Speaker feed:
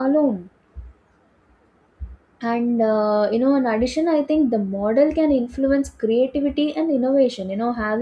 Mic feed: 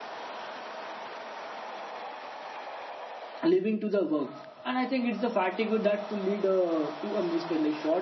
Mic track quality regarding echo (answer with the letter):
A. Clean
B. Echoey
A